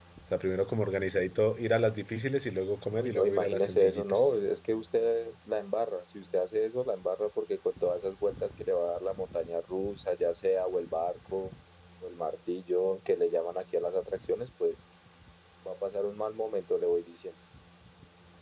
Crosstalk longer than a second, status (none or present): present